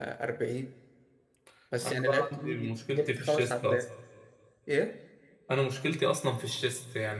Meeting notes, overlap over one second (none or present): present